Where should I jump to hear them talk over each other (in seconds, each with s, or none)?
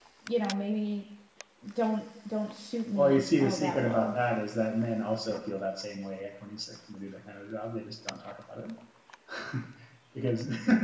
3.0 s